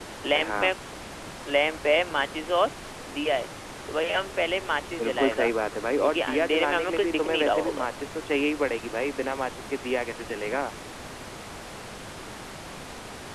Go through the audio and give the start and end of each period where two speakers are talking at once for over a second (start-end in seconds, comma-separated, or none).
6.0-7.9